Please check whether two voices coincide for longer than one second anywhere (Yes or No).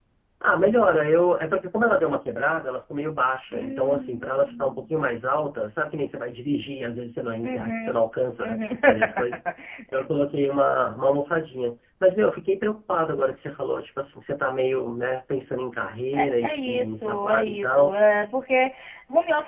Yes